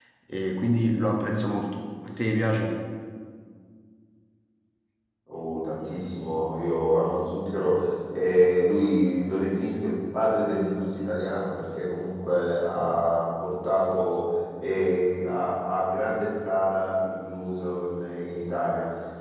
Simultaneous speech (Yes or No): No